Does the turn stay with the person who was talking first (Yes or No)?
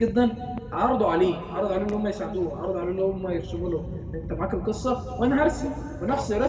Yes